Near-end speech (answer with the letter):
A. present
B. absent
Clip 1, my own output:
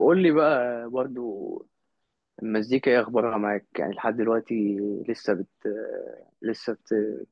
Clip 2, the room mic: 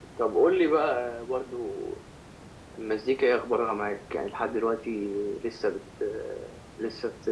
B